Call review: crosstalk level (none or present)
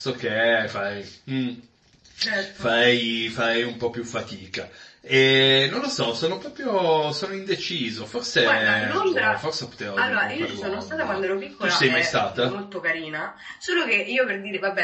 present